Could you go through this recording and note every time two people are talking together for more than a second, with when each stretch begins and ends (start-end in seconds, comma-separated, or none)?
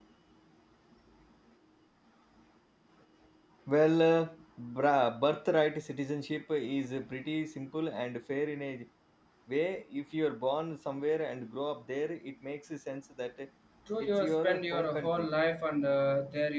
14.0-15.3